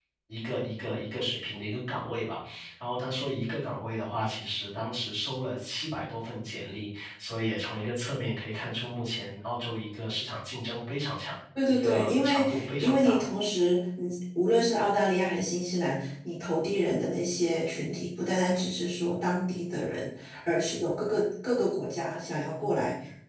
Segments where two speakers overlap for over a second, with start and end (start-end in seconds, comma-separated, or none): 11.7-13.3